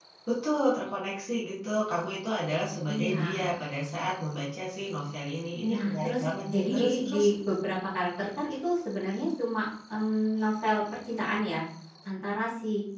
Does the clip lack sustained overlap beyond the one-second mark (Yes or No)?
No